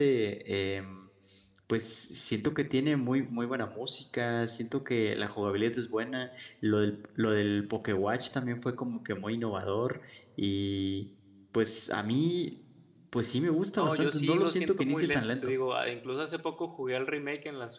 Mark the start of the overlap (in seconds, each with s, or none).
13.8 s